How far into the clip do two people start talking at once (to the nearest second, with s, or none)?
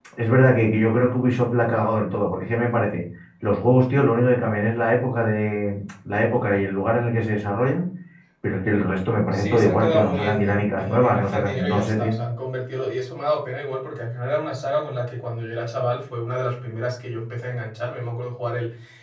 9 s